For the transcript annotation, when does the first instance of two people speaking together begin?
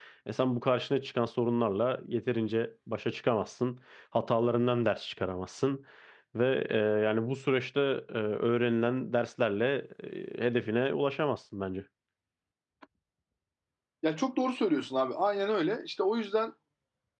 none

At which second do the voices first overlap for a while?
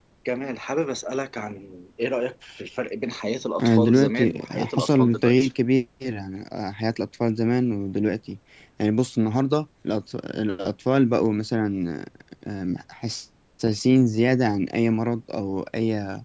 3.6 s

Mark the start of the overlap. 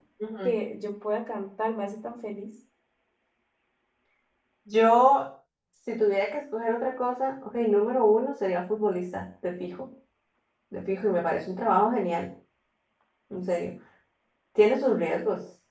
none

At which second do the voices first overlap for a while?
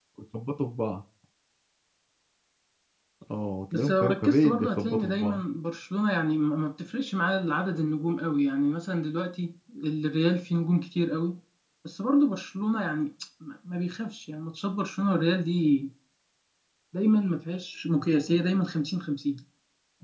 3.7 s

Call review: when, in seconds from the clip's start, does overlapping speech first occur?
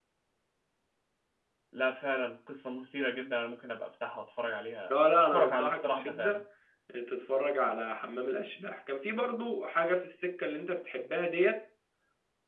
4.9 s

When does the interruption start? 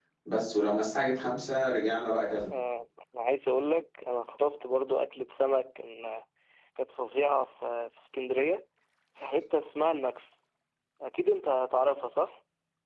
none

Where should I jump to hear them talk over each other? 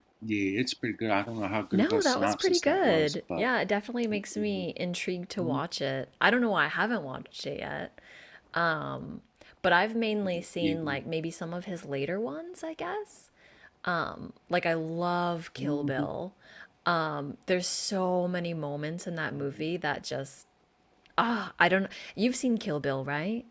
1.7 s

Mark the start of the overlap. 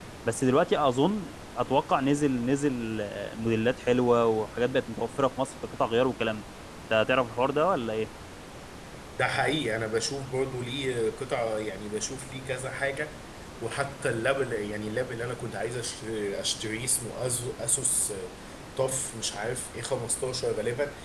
none

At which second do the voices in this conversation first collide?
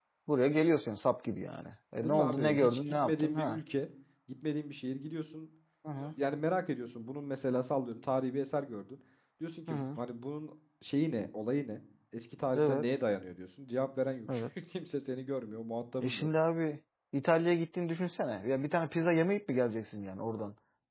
2.0 s

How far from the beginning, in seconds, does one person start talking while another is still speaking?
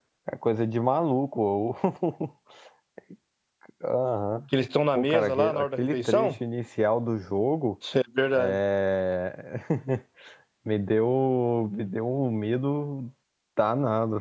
5.0 s

